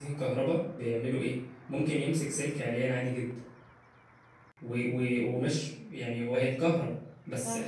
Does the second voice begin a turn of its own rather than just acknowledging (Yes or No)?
No